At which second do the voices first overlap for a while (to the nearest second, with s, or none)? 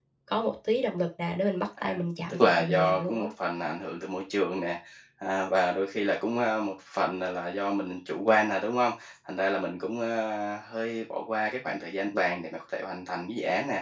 2 s